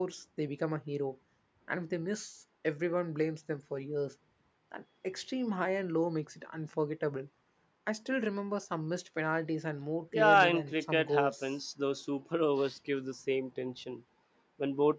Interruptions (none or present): present